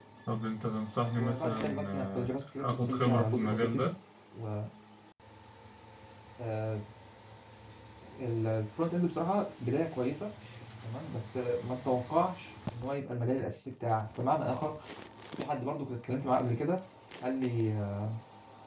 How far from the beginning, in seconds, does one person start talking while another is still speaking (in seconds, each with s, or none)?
1.2 s